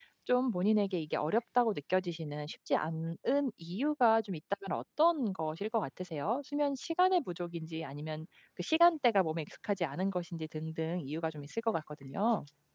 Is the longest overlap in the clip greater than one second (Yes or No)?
No